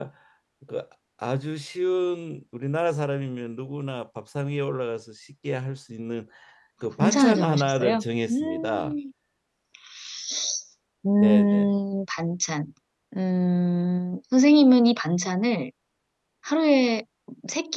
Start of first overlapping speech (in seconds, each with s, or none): 7.0 s